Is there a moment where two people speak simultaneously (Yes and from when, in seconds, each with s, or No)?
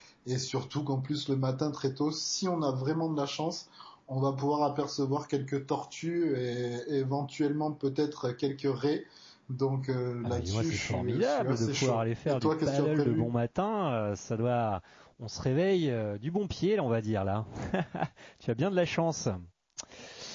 Yes, from 10.2 s